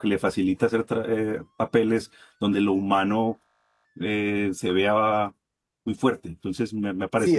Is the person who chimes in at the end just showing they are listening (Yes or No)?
No